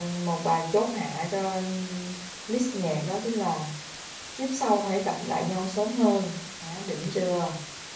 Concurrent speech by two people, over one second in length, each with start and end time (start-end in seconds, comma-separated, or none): none